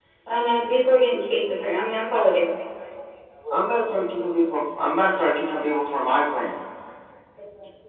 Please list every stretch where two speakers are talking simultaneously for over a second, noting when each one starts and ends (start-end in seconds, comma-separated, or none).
none